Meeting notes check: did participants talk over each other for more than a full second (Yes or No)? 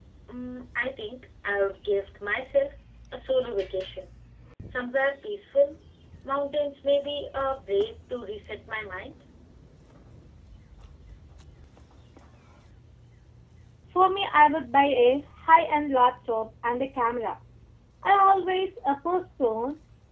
No